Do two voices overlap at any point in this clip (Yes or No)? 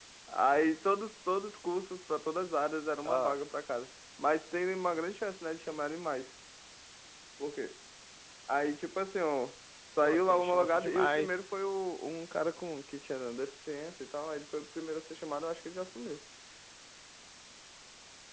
Yes